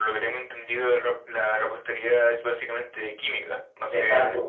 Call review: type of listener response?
taking over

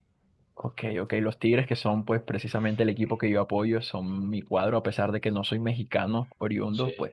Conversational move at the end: listening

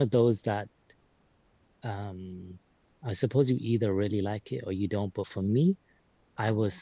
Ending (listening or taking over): listening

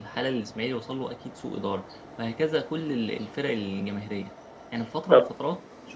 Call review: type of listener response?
listening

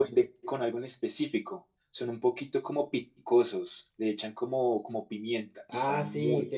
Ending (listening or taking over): taking over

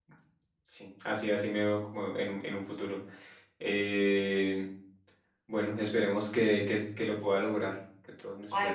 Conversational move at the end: taking over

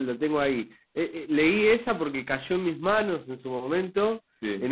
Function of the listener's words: listening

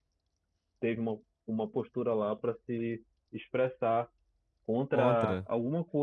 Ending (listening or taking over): listening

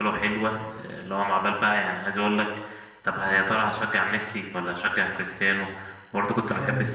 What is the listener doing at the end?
listening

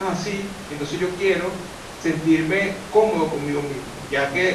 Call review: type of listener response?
taking over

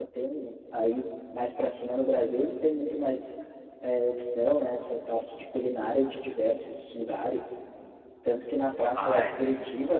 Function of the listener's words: listening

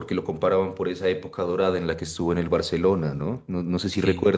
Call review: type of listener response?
listening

